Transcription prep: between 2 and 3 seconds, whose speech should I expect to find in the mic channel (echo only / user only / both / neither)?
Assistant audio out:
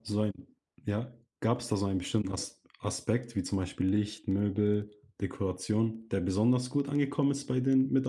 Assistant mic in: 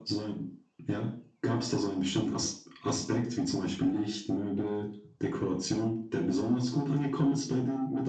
echo only